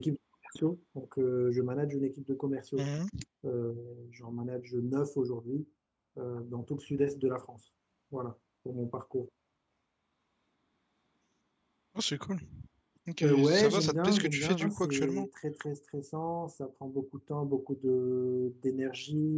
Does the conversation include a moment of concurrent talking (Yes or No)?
Yes